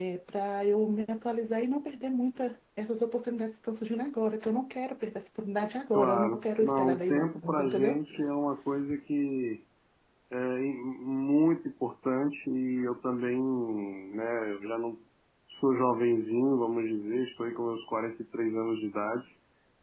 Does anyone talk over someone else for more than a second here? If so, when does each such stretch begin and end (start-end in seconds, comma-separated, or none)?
5.9-8.0